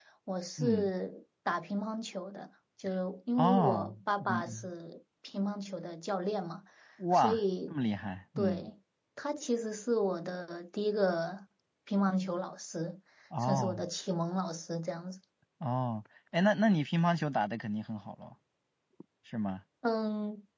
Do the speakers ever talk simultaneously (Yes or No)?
Yes